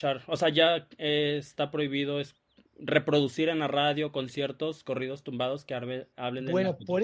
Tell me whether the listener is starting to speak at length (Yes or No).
Yes